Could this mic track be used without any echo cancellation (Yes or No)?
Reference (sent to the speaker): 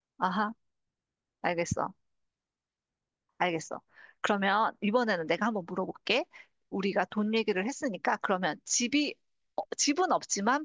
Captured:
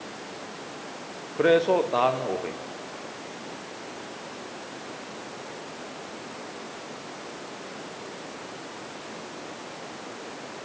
Yes